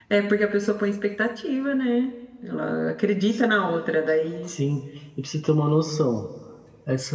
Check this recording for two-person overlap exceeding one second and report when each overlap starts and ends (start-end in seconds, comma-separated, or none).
none